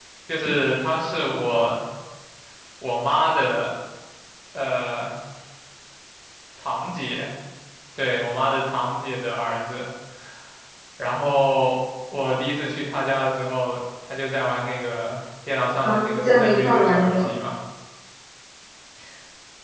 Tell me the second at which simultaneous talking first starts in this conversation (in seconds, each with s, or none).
15.8 s